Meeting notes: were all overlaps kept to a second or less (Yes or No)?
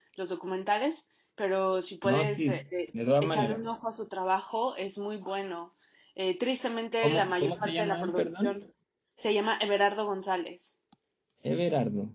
No